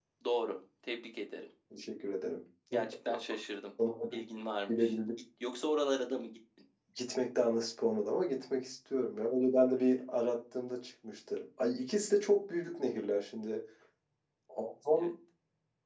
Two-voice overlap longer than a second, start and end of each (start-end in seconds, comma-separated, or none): none